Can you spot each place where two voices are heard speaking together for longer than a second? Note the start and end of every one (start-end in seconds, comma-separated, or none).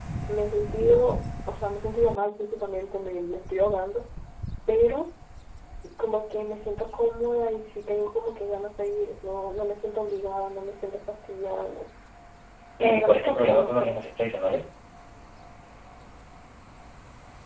12.8-14.1